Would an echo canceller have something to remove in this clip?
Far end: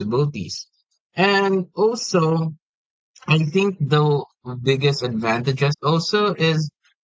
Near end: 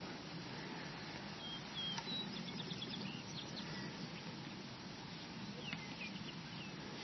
No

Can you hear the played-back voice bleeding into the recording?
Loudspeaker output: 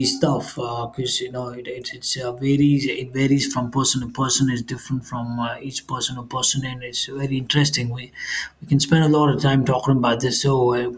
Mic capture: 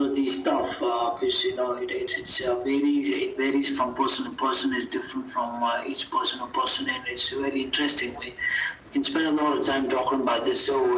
Yes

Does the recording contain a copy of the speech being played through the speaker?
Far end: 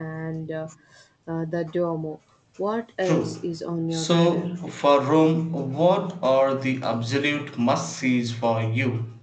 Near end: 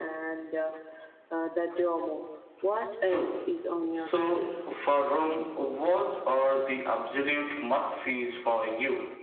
Yes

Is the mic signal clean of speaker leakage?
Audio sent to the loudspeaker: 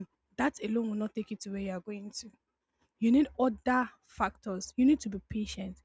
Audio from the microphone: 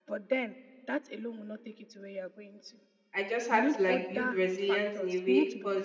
No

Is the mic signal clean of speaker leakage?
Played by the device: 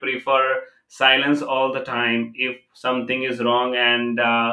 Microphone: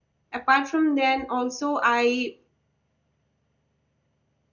Yes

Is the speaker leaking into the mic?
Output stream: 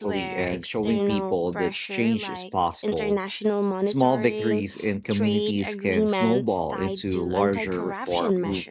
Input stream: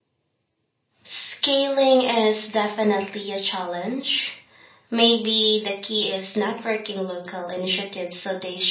No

